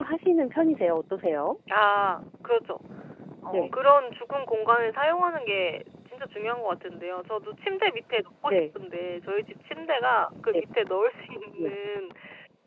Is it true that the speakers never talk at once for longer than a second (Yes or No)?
Yes